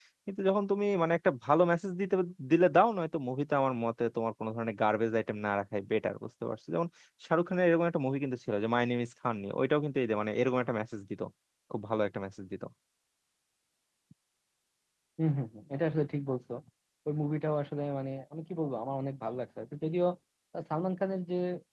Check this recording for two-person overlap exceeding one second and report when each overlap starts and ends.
none

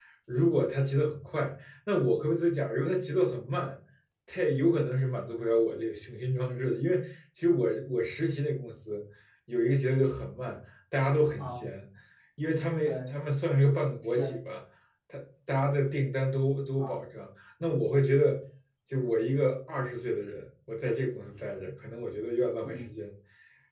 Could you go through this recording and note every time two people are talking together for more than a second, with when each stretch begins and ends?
none

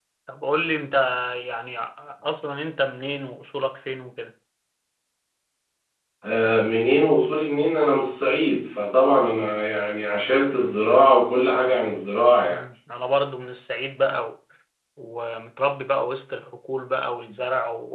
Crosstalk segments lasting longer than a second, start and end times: none

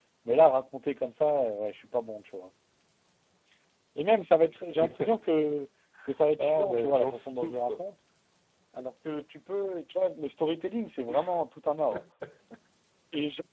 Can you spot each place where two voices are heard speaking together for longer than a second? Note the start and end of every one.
6.4-7.8

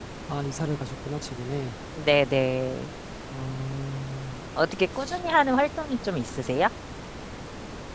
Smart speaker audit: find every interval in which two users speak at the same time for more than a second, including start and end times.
none

